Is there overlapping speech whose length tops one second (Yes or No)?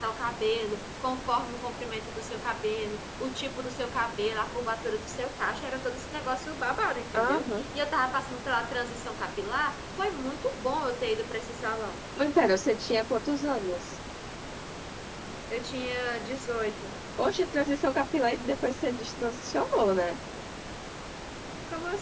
No